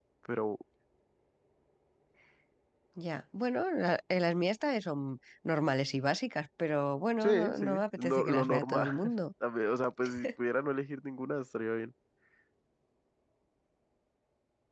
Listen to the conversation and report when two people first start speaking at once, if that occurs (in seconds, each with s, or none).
7.2 s